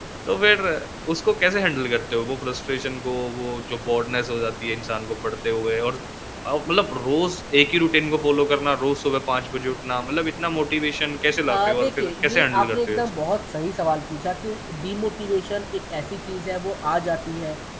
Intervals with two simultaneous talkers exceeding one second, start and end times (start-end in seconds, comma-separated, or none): 11.5-13.1